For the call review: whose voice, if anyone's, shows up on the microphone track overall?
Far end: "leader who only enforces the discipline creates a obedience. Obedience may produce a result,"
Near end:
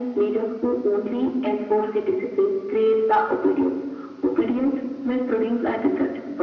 echo only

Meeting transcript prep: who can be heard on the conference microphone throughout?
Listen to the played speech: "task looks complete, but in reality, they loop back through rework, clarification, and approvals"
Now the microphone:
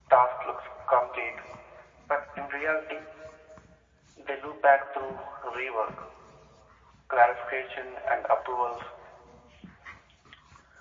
echo only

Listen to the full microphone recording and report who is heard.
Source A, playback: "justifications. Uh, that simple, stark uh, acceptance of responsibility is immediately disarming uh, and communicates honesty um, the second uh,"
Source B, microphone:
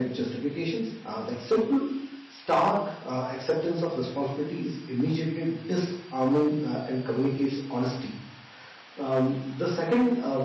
echo only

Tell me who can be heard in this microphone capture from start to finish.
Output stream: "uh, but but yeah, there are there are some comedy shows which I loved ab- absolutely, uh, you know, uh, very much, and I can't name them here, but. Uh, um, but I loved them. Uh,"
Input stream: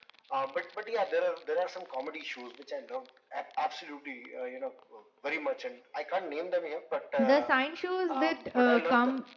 both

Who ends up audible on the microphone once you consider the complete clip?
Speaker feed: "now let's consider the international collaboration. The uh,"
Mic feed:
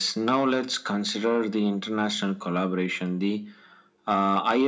echo only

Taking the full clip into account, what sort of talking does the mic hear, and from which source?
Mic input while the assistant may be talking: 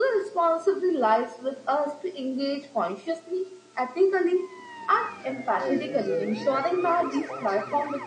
both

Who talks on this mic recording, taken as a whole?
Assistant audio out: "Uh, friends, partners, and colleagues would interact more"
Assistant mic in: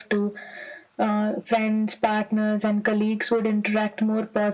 echo only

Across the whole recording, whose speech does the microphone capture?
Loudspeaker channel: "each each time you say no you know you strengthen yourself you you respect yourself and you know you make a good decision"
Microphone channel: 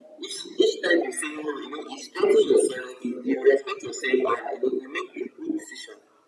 echo only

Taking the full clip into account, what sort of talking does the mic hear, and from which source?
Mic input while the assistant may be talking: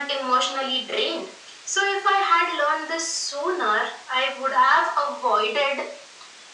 echo only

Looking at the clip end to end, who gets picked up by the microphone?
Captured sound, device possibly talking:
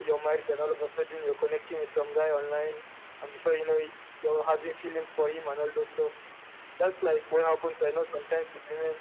echo only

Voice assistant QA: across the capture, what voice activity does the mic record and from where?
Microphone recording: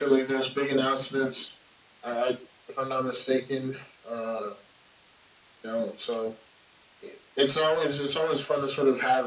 echo only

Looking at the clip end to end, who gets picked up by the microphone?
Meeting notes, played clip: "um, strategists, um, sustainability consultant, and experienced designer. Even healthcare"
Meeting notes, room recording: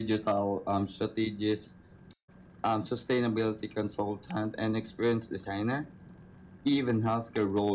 echo only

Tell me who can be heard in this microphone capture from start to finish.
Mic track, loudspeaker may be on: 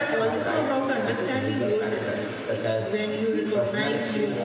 both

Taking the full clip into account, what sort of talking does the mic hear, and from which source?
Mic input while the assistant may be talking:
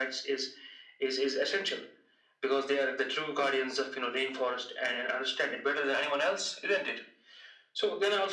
echo only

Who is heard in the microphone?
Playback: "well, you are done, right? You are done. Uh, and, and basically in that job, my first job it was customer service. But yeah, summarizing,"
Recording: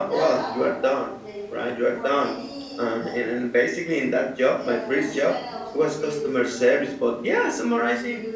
both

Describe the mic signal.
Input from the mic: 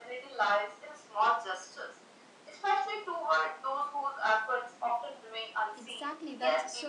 both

